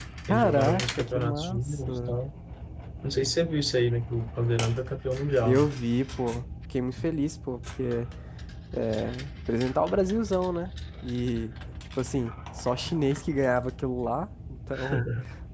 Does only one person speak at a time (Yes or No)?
No